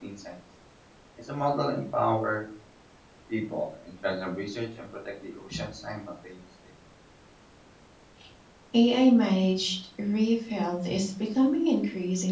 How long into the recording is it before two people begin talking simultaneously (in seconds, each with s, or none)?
none